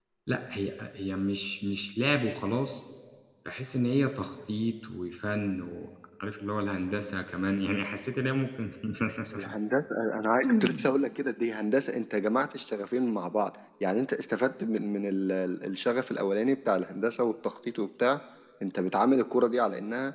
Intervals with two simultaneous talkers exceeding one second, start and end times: none

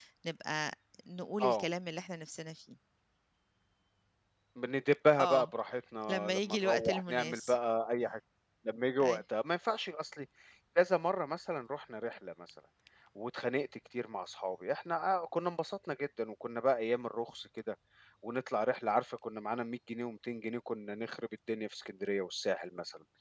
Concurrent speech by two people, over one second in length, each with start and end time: 6.1-7.6

